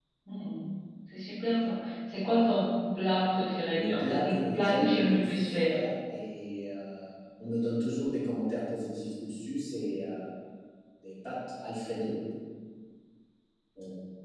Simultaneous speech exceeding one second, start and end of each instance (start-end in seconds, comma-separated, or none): 3.8-5.8